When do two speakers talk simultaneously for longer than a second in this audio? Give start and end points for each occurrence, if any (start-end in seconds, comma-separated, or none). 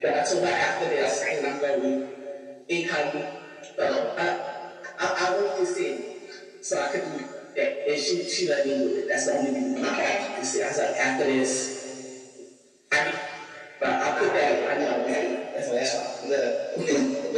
14.2-16.0